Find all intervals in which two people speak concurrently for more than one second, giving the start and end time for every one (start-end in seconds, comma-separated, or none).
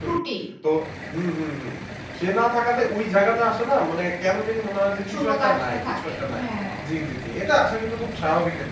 5.1-6.4